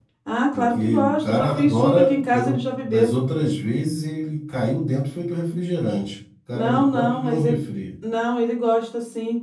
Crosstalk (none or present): present